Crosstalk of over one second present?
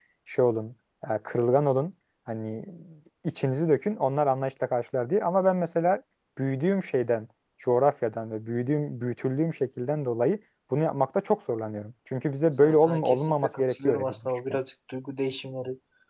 Yes, from 12.6 s

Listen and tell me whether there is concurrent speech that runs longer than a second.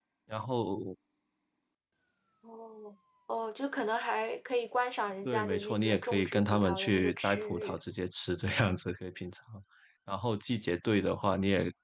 Yes, from 5.2 s

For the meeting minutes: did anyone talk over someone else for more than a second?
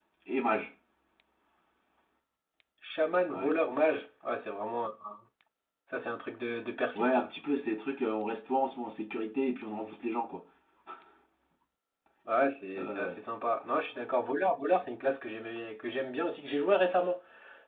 No

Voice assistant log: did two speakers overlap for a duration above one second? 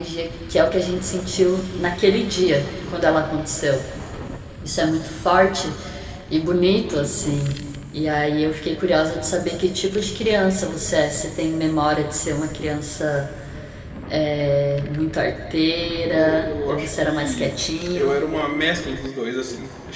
Yes, from 16.2 s

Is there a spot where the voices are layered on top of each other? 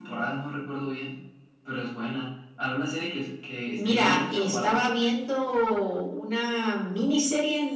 Yes, from 3.7 s

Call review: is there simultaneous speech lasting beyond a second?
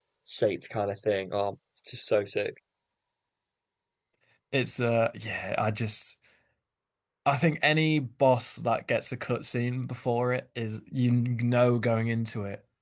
No

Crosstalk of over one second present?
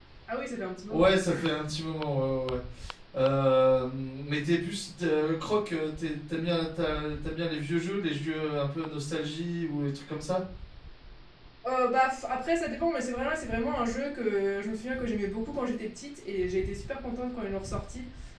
No

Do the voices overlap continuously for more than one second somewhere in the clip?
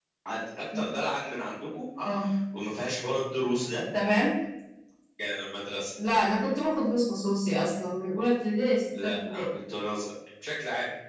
No

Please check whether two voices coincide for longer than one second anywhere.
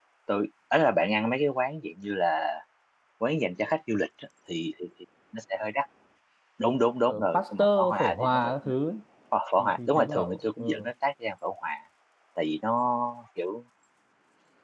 Yes, from 7.1 s

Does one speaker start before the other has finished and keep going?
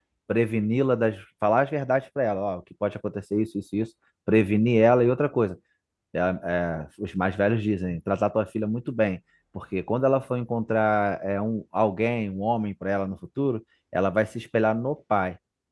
No

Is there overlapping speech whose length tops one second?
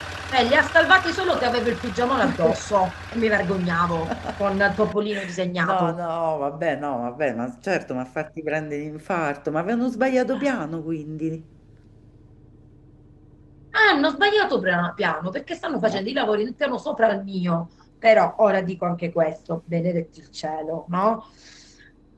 No

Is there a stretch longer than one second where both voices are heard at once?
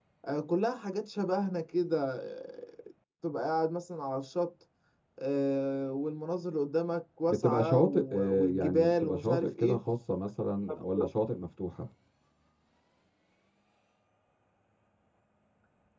Yes, from 7.3 s

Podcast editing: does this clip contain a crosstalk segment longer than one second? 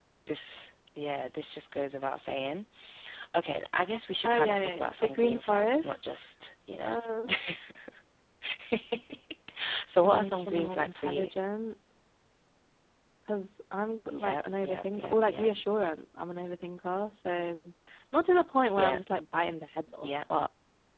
Yes, from 4.2 s

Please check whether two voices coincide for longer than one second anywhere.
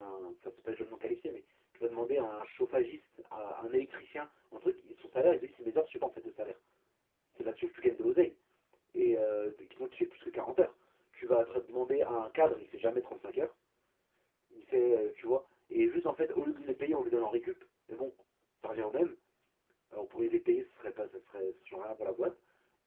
No

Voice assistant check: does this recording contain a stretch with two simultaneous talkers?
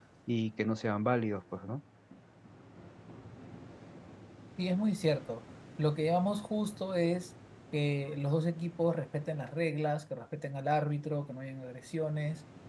No

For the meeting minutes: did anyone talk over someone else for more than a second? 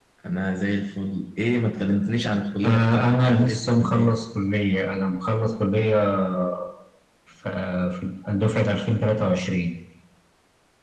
Yes, from 2.6 s

